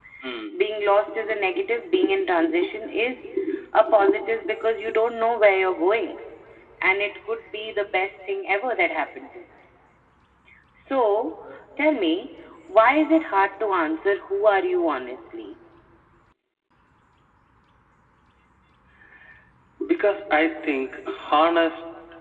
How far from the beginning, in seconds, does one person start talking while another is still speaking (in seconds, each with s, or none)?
none